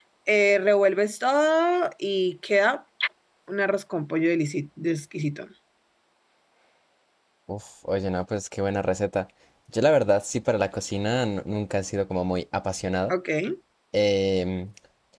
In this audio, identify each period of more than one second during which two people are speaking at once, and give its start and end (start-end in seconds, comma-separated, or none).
none